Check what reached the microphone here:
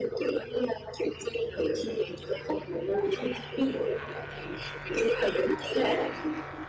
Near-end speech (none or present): none